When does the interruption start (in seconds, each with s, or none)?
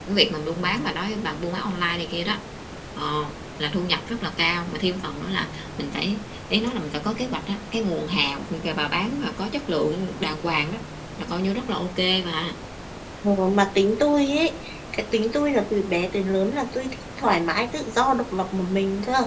none